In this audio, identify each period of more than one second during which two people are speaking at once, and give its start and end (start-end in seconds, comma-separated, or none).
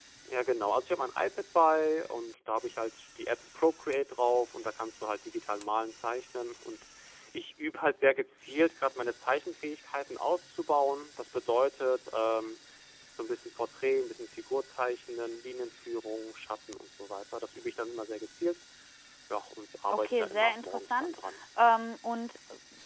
19.9-21.1